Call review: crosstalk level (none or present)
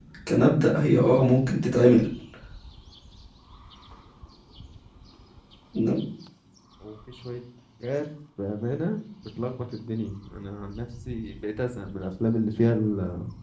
none